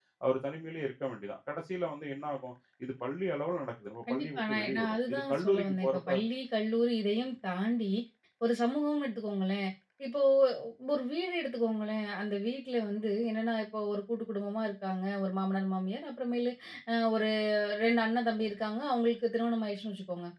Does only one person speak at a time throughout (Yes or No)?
No